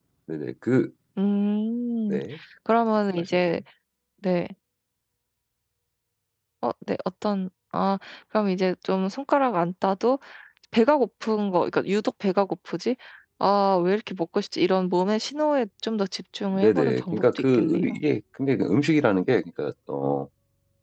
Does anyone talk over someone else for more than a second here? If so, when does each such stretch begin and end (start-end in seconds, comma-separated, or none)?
16.6-17.8